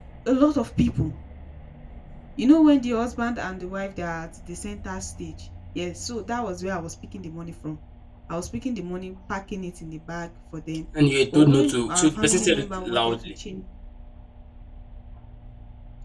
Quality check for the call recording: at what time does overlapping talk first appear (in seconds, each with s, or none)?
11.3 s